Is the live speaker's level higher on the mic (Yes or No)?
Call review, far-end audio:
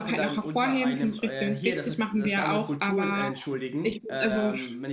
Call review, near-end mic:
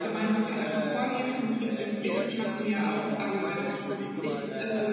No